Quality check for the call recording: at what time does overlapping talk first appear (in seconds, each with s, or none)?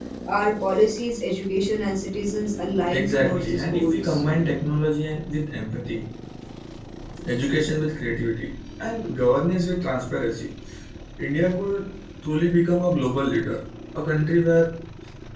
2.9 s